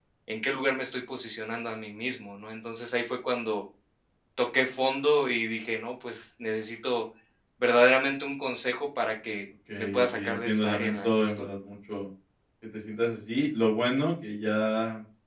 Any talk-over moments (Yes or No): Yes